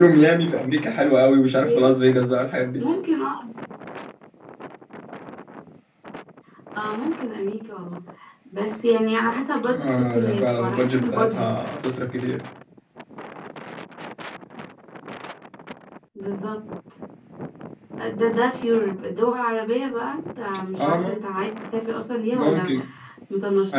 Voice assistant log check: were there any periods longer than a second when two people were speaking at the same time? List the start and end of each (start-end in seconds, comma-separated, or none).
9.7-11.5